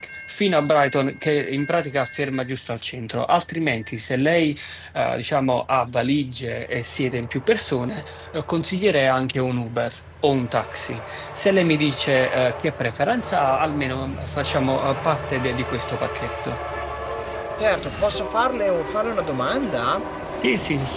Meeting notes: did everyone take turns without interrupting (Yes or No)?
Yes